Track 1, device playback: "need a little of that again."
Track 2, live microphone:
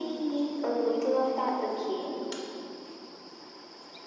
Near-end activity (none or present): none